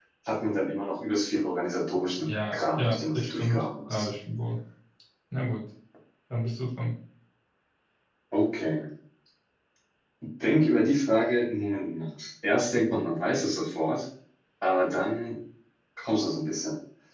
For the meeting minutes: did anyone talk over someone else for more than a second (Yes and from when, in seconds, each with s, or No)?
Yes, from 2.3 s